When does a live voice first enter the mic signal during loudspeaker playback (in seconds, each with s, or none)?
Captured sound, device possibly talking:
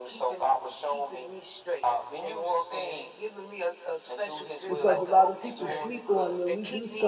4.7 s